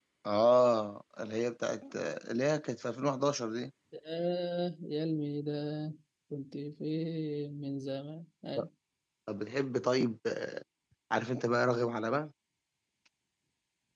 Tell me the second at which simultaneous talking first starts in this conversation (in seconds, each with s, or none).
none